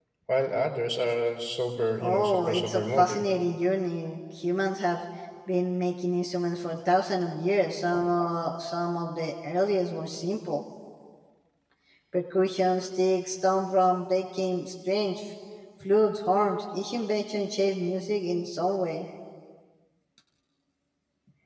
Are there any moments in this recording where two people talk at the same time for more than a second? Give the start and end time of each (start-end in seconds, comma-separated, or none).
2.0-3.3